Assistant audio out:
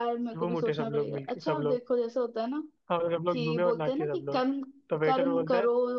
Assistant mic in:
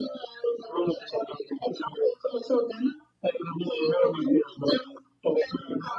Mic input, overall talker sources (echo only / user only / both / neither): echo only